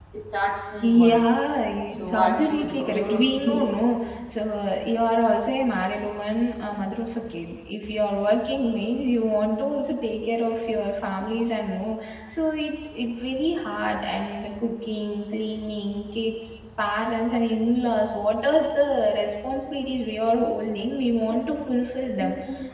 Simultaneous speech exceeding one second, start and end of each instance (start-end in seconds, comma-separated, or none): 2.0-3.7